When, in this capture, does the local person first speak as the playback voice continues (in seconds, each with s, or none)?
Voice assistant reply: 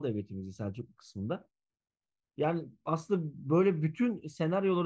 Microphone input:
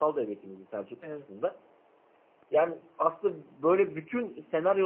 1.0 s